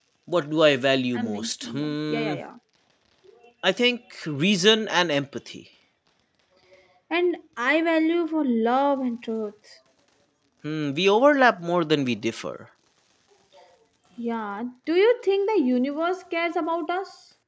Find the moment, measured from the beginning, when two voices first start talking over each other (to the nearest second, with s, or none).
1 s